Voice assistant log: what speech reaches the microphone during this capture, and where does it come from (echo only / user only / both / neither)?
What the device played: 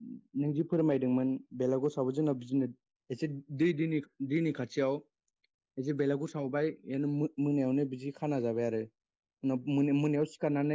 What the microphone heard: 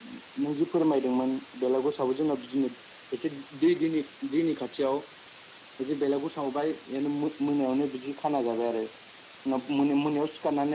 echo only